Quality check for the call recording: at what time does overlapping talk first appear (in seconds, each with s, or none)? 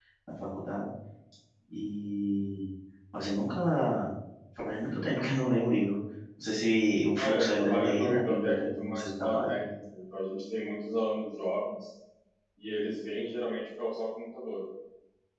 7.2 s